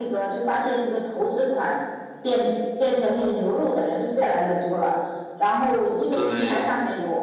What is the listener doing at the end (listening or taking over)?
listening